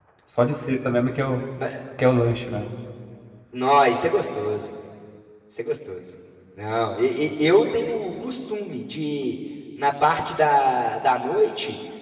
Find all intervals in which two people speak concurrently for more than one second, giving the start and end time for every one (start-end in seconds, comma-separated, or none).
none